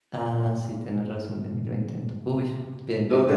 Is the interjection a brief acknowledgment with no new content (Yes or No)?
No